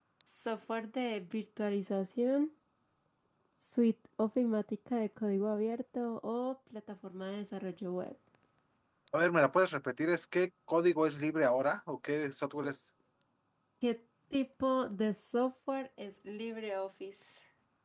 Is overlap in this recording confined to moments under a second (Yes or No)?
Yes